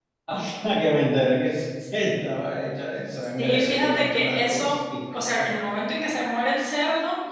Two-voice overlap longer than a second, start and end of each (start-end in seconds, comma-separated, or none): 3.4-4.8